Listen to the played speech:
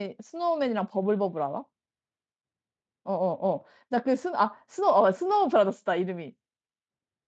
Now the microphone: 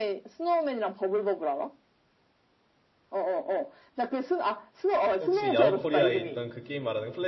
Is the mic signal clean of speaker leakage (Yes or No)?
No